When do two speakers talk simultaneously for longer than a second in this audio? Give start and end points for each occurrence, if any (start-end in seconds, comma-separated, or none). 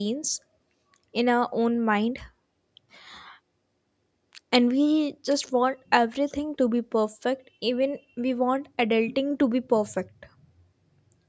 none